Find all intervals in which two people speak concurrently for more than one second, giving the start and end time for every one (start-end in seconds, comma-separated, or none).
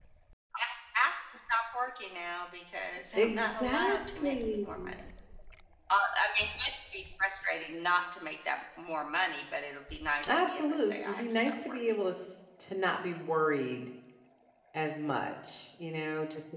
3.1-4.7, 10.3-11.8